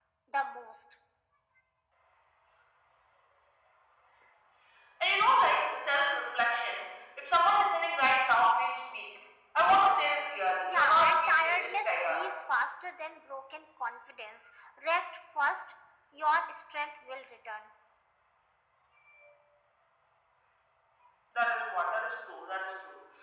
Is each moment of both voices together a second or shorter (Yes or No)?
No